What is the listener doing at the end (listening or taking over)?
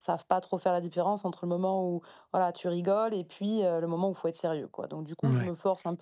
listening